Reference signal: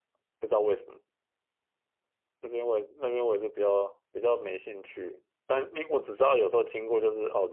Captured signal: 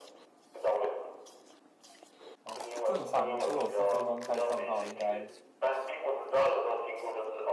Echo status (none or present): present